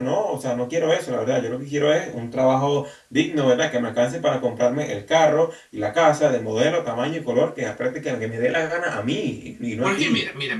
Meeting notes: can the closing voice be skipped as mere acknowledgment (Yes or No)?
No